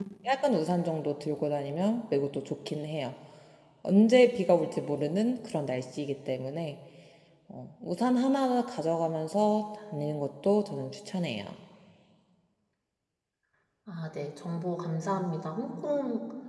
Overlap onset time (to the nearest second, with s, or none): none